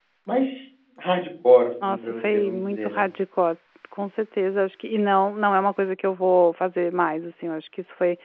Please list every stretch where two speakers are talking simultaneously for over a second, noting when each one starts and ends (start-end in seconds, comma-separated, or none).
1.9-3.1